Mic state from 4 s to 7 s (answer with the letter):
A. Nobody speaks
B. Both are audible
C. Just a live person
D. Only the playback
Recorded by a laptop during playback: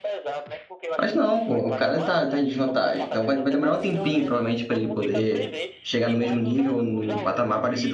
B